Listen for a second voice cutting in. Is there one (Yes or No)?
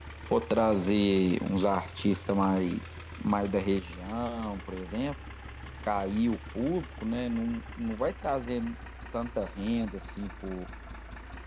No